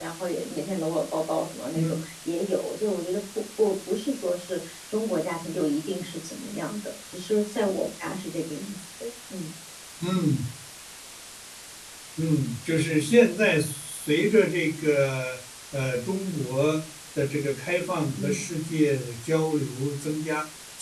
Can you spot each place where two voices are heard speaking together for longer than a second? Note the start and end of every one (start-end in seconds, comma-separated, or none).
none